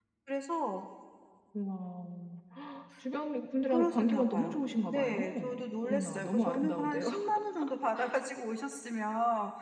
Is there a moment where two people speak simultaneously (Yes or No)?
Yes